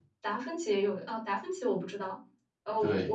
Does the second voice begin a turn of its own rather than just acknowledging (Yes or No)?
No